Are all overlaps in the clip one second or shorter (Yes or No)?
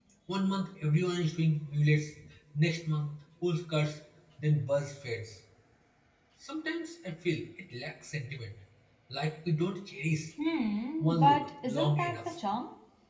No